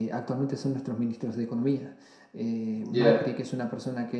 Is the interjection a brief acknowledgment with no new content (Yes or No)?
Yes